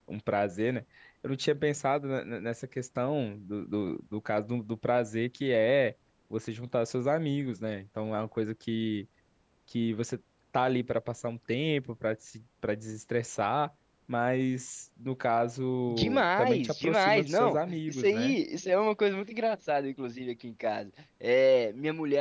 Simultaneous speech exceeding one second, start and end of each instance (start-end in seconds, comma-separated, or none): 15.9-18.4